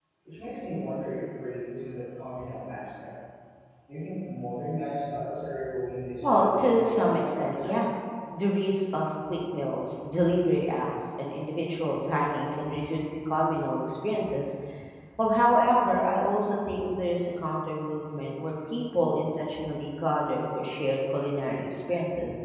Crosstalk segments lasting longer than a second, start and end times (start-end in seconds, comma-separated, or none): 6.2-7.8